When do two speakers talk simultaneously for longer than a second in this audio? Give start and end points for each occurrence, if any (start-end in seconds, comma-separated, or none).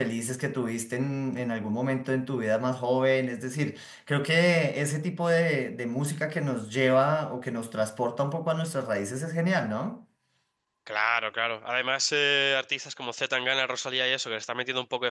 none